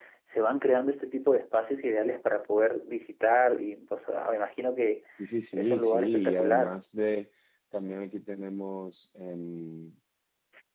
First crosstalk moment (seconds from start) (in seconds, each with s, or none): 5.5 s